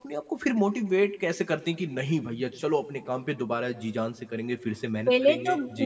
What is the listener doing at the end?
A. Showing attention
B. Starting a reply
B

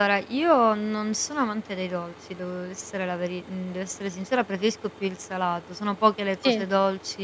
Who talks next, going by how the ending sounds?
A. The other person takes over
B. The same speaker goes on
B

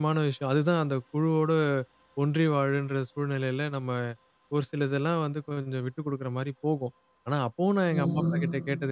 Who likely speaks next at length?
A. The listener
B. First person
B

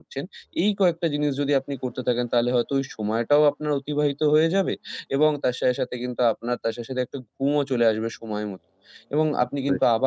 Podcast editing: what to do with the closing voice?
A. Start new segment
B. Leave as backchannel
B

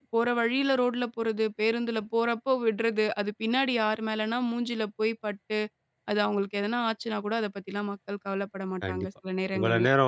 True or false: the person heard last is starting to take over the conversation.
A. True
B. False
A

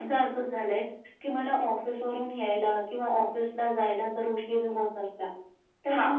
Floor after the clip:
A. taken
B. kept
B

